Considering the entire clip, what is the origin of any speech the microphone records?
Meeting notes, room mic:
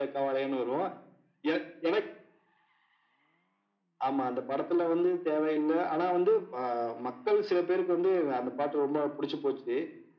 echo only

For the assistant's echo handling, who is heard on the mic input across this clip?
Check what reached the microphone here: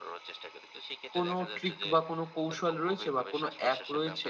both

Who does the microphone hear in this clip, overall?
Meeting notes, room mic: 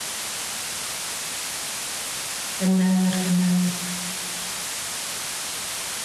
user only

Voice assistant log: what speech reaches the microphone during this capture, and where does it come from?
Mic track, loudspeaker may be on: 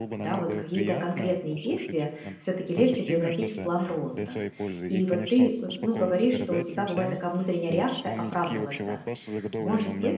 both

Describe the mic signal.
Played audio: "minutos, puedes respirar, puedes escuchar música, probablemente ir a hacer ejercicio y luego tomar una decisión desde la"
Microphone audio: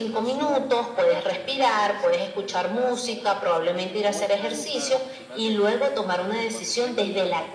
both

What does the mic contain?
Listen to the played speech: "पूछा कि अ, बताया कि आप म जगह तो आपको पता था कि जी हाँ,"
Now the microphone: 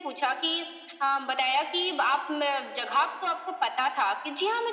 echo only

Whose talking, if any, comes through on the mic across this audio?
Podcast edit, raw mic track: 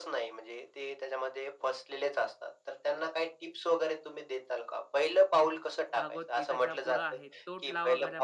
both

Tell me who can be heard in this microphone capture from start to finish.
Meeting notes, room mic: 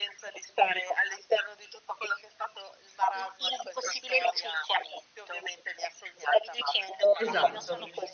both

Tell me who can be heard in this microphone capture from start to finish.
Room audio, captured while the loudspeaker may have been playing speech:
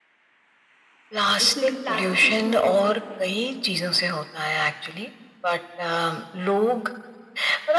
both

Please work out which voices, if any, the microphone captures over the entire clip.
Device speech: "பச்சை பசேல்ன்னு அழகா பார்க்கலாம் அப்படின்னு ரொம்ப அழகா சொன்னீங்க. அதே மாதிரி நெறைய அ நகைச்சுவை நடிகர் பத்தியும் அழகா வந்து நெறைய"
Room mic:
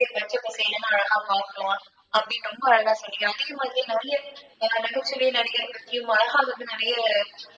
echo only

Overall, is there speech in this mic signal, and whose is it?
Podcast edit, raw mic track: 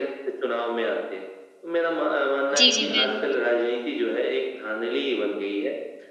both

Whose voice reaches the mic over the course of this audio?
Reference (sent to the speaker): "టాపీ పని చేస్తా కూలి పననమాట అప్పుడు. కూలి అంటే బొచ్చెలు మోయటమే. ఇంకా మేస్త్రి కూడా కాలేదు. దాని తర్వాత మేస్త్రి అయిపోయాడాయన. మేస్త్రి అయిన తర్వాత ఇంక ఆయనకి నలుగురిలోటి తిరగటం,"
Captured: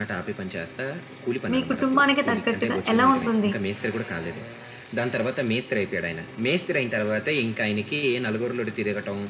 both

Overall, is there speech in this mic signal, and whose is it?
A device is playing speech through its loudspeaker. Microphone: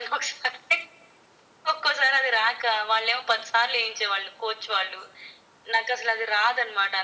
echo only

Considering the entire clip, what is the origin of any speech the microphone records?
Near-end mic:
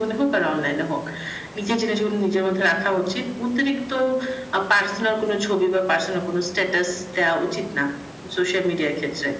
echo only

